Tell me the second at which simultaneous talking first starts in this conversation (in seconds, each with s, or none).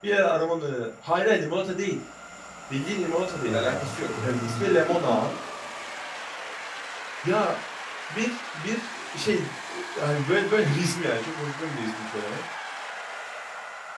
3.4 s